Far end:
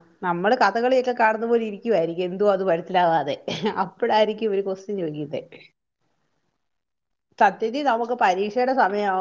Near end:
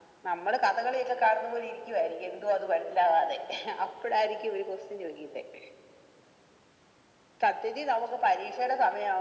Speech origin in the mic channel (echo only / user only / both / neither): echo only